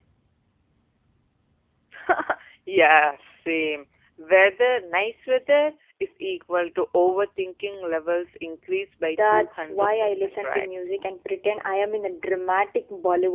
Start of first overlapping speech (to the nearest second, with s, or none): 9 s